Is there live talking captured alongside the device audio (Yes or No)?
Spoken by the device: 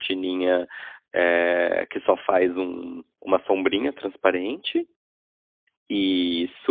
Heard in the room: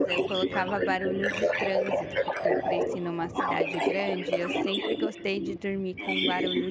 Yes